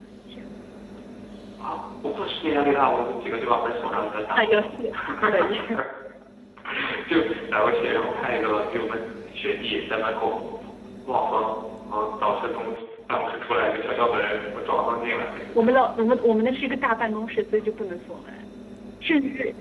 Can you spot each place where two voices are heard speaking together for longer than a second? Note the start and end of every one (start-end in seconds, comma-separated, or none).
none